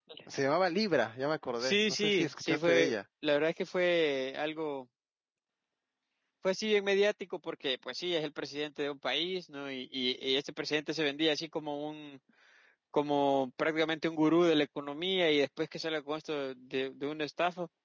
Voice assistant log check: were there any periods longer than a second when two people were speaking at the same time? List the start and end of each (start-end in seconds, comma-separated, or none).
1.6-3.0